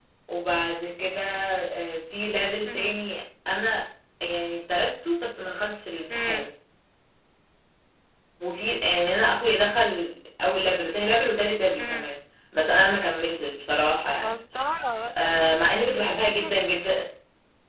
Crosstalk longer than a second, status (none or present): none